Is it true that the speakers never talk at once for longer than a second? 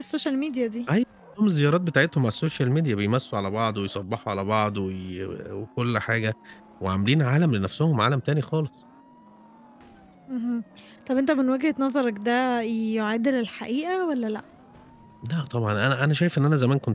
Yes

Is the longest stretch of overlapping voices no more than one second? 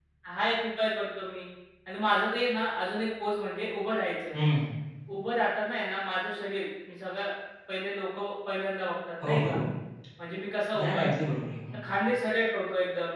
Yes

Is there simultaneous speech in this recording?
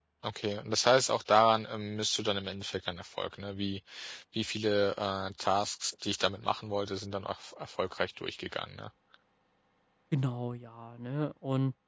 No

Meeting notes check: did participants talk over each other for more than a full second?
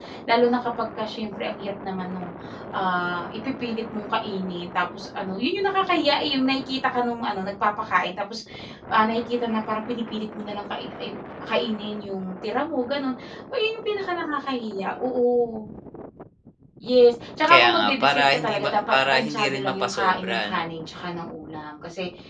Yes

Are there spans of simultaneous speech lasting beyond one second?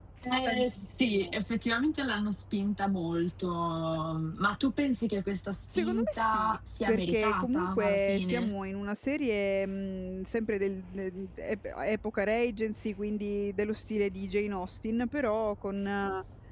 Yes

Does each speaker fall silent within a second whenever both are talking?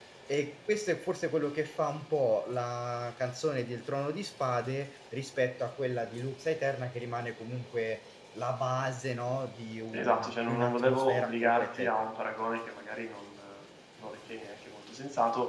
No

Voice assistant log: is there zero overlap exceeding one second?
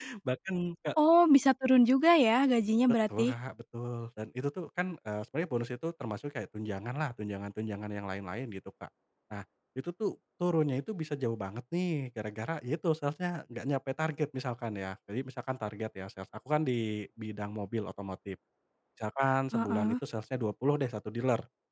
Yes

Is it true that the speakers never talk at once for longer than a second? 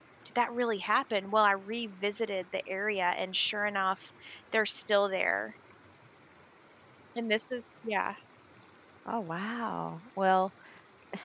Yes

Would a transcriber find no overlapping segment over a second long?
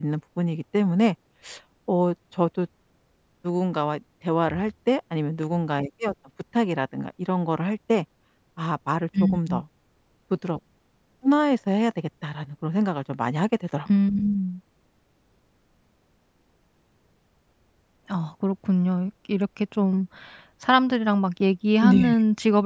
Yes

